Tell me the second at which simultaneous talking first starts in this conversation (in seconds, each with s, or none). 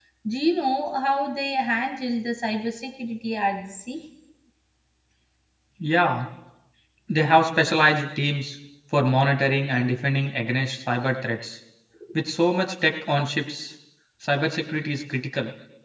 none